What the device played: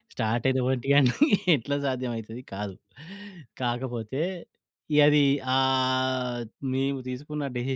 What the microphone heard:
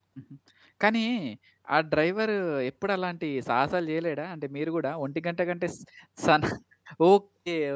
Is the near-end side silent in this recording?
No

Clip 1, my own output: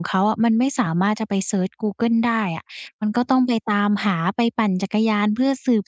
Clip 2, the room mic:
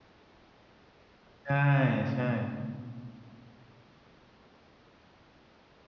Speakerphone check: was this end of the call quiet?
No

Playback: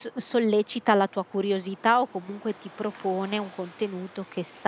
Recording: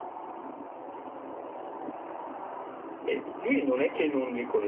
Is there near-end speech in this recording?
Yes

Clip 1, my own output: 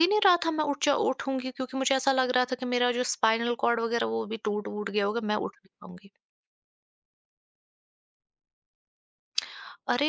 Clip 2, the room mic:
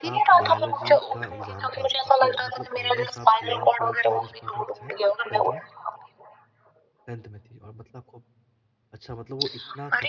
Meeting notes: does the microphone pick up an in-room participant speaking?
Yes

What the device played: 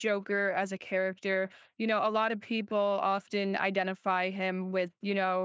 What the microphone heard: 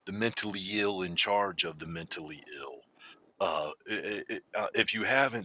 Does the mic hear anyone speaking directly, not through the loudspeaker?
Yes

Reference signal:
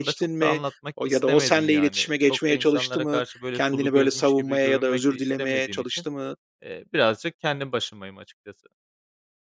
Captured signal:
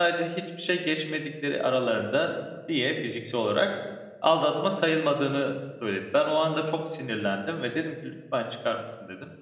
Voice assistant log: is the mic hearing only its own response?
No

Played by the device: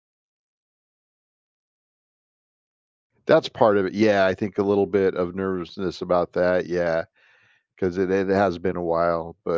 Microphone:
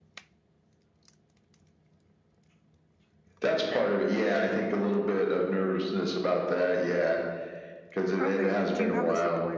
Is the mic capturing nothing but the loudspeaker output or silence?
No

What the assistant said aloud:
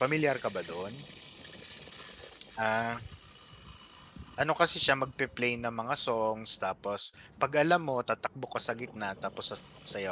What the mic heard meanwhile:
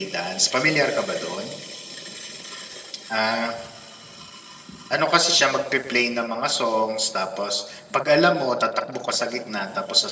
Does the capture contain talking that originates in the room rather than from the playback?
No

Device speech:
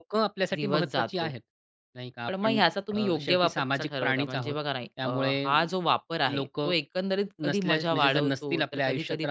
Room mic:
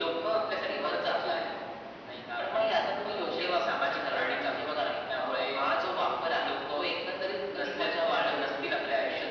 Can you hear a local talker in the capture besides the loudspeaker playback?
No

